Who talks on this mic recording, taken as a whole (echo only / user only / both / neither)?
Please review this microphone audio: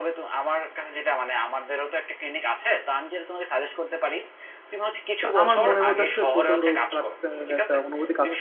both